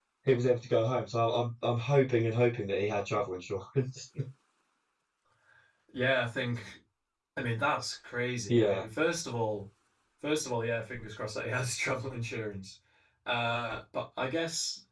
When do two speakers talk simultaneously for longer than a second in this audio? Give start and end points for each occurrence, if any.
none

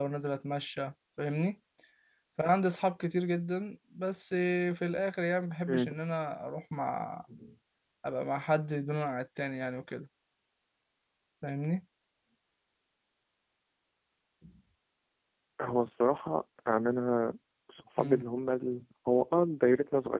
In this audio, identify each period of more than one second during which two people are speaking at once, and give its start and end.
none

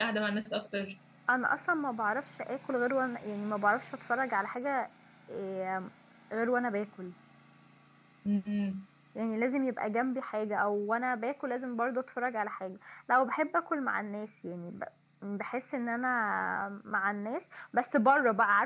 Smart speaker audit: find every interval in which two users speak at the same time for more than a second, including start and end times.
none

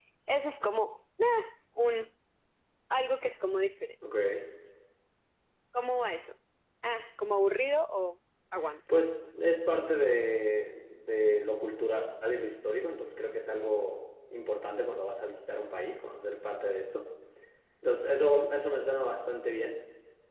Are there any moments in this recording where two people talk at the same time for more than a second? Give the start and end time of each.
none

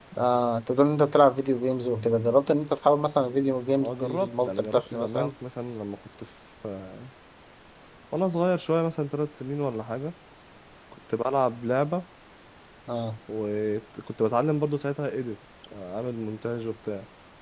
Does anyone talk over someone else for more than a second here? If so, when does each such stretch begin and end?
3.8-5.3

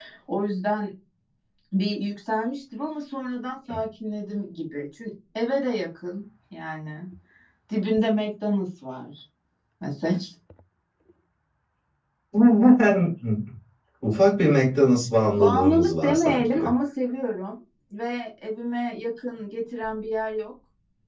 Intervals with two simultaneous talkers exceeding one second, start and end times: 15.4-16.7

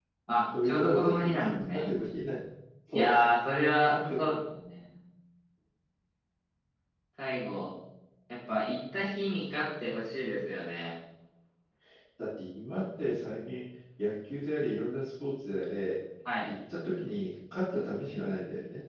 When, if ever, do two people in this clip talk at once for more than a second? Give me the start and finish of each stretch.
0.6-1.9

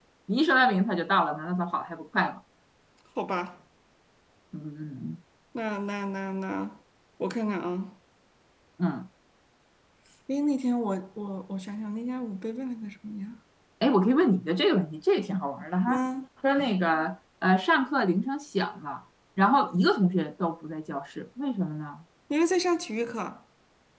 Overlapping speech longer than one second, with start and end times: none

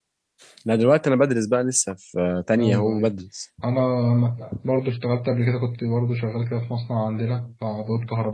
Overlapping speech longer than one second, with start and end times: none

